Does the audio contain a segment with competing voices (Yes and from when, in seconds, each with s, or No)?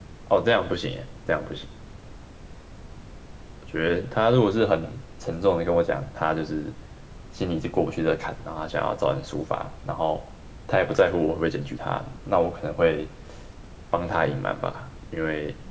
No